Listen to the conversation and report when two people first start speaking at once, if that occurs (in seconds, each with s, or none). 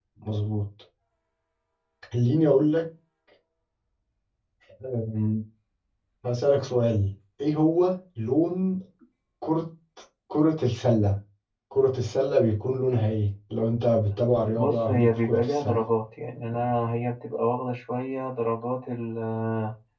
14.5 s